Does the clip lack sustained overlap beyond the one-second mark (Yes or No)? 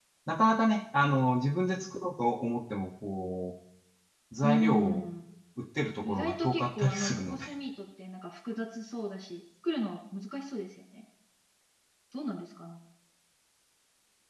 No